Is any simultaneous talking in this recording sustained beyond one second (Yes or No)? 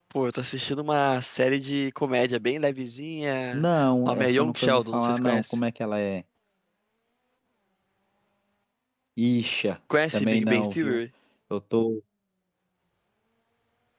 Yes